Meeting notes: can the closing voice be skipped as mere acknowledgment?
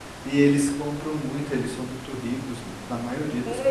No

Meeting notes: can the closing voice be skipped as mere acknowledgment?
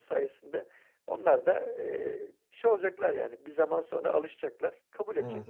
No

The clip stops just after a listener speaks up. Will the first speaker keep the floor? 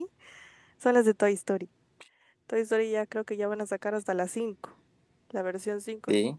Yes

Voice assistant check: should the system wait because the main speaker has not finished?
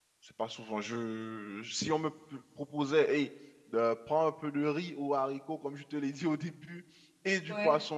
Yes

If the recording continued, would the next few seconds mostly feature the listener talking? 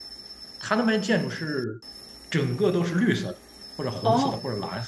Yes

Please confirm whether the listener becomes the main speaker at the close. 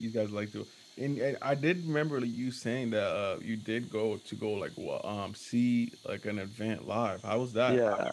Yes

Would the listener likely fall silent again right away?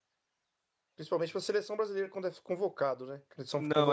Yes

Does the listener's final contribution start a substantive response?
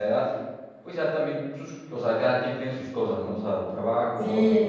Yes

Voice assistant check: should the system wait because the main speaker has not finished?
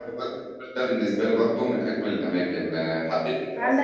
No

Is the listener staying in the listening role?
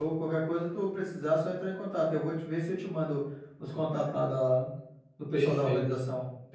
No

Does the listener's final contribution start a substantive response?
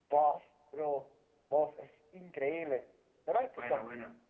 Yes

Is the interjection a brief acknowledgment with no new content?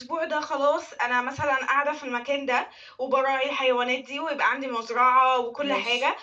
Yes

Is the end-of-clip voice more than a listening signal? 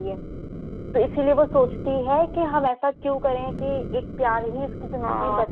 Yes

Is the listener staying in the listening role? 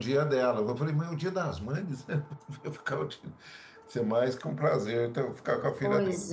Yes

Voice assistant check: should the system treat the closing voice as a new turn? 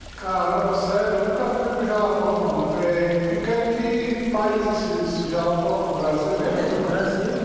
Yes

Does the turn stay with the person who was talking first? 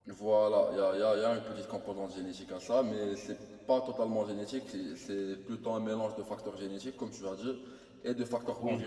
Yes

